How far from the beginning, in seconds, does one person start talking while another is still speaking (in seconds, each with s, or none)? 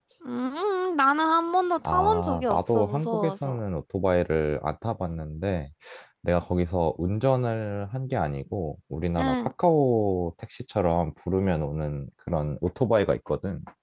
1.9 s